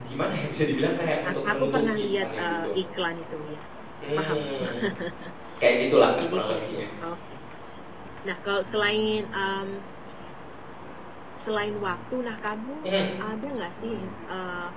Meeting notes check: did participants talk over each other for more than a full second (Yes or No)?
Yes